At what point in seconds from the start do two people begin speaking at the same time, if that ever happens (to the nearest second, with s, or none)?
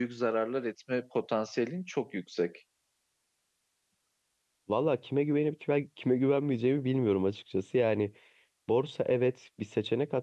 none